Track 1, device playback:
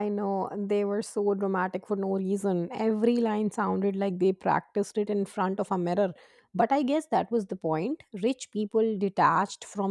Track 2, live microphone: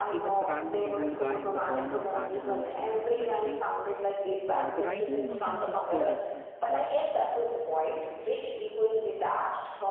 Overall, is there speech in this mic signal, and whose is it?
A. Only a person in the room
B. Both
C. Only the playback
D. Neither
B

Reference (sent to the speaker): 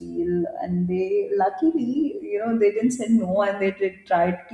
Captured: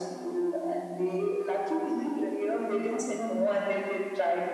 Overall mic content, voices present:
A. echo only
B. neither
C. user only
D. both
D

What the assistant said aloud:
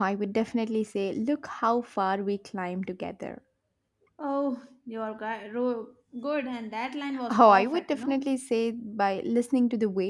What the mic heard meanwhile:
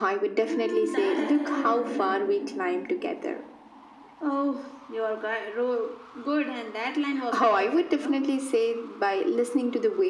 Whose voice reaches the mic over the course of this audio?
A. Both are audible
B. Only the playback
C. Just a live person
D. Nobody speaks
A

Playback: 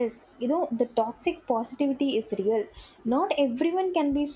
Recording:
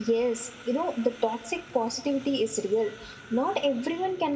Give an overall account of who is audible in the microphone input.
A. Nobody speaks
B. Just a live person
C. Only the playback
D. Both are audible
C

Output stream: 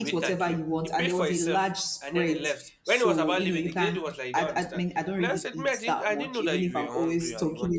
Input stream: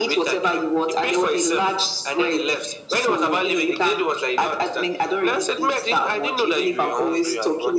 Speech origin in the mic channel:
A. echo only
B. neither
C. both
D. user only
A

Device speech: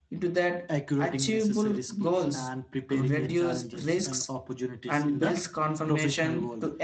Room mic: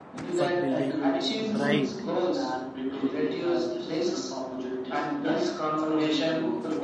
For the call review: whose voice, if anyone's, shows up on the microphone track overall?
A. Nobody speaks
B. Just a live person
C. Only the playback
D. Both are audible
D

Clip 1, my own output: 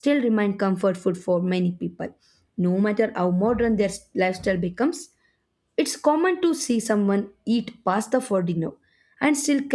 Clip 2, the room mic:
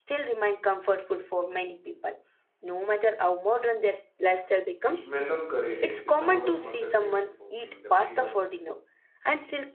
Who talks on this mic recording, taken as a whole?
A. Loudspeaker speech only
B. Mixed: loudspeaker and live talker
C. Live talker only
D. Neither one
B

